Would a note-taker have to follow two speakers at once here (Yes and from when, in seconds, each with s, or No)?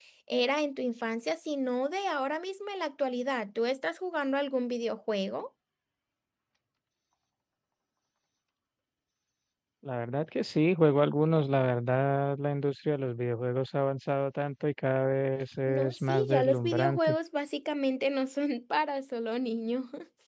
Yes, from 15.7 s